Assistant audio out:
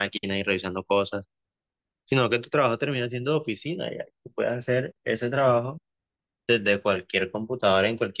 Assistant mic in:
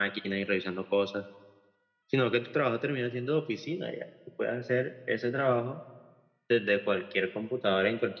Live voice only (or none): none